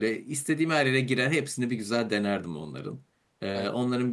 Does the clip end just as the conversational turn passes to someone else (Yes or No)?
No